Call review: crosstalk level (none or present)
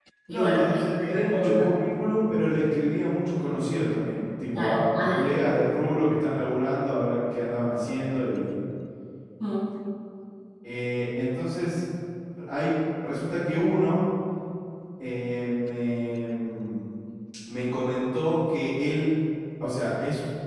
present